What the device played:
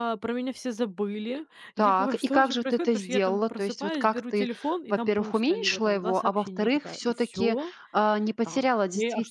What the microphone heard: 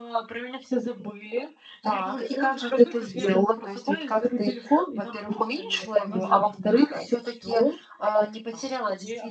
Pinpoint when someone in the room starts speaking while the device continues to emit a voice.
6.0 s

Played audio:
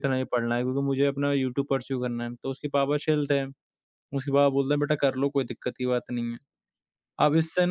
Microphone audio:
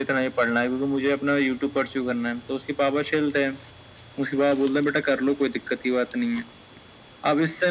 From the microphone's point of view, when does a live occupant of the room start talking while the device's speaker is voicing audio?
none

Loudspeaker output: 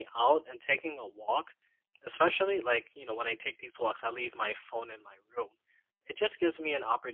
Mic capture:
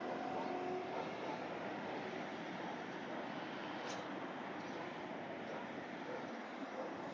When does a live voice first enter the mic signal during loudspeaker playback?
none

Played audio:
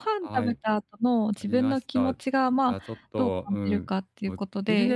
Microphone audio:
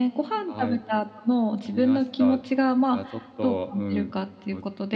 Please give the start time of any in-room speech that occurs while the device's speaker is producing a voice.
none

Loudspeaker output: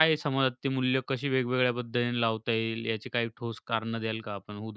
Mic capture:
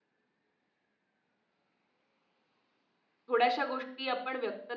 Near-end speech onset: 3.3 s

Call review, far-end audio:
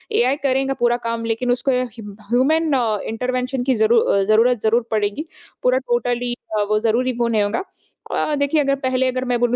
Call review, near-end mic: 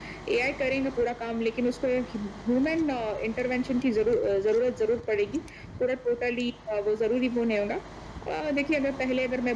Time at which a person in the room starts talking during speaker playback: none

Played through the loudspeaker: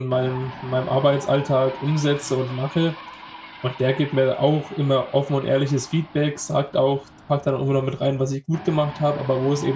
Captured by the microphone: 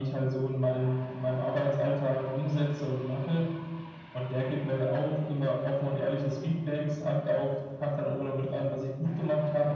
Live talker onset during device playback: none

